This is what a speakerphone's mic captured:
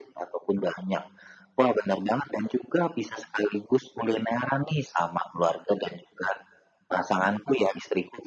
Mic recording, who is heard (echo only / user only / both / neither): echo only